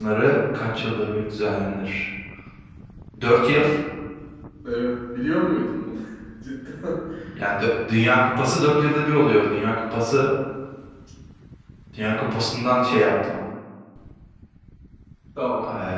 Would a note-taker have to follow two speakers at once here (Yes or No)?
No